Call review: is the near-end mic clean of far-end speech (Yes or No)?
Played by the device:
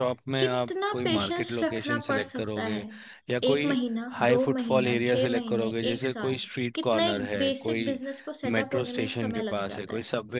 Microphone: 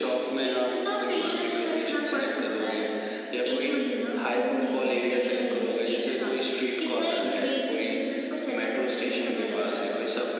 No